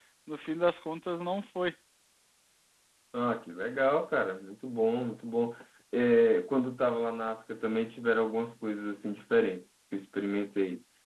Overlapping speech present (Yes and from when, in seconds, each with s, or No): No